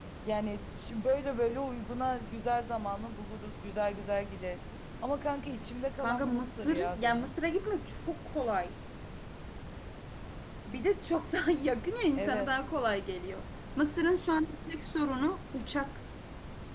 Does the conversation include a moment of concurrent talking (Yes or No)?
Yes